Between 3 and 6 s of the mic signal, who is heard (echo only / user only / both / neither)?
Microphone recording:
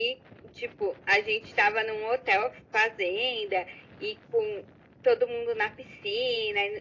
echo only